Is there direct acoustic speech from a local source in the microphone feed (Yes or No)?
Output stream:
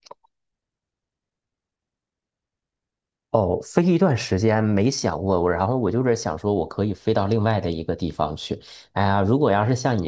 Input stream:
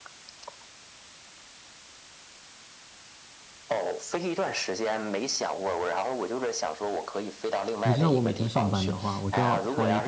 Yes